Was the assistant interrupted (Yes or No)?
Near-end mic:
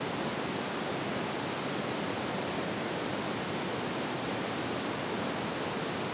No